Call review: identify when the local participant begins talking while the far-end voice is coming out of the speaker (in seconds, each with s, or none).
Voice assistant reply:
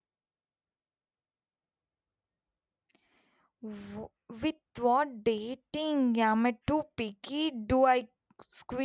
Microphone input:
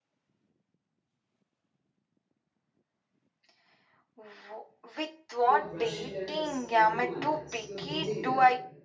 5.4 s